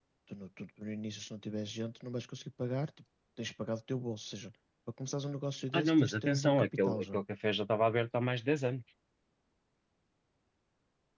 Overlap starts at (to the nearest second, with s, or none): 6 s